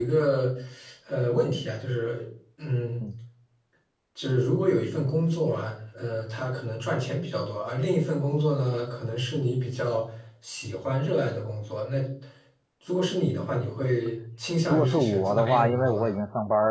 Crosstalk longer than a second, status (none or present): present